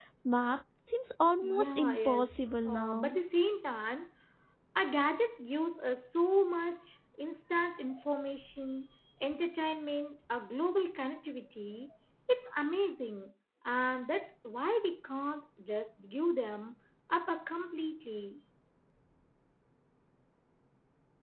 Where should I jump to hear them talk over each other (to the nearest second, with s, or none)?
1 s